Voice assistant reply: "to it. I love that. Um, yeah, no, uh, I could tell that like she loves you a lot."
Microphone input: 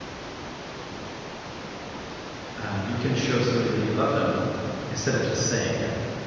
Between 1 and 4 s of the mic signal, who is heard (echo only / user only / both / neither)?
user only